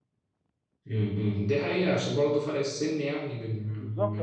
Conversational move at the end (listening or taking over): taking over